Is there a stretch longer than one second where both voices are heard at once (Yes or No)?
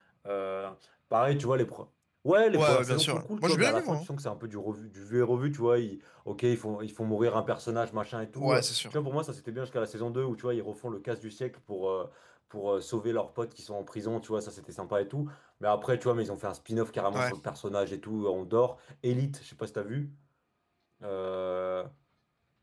Yes